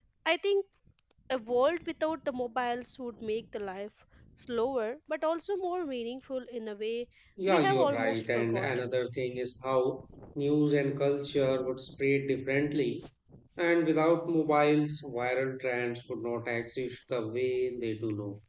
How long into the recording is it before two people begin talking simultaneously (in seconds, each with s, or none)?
7.5 s